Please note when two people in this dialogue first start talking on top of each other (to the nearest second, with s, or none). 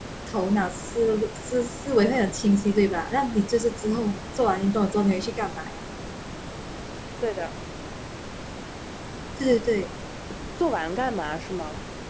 none